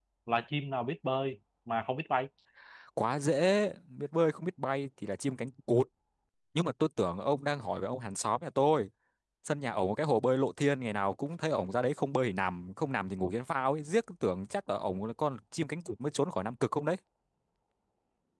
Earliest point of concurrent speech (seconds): none

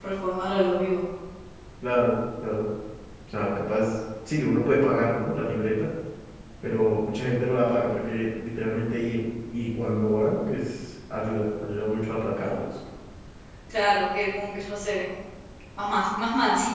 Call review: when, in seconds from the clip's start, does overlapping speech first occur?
none

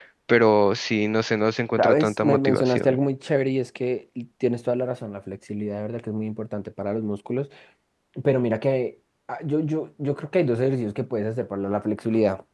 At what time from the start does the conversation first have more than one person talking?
1.8 s

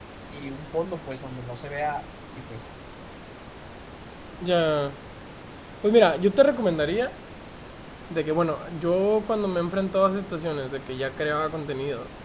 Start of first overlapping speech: none

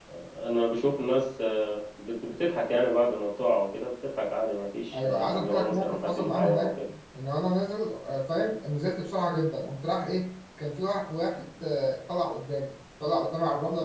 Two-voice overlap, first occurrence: 4.9 s

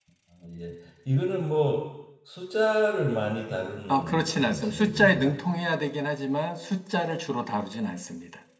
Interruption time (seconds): 3.9 s

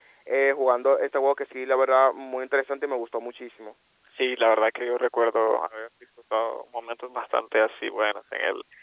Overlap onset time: none

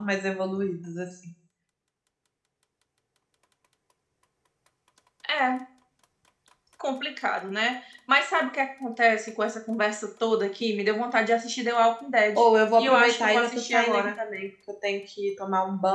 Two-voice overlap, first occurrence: 12.8 s

